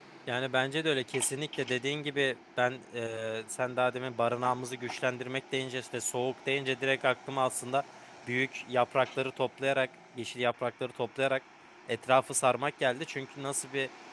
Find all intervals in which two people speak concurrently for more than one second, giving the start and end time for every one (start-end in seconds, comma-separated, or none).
none